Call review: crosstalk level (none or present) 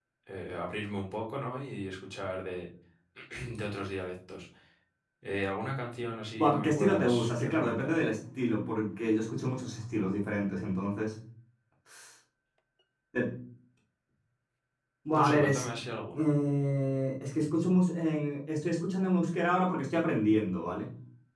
present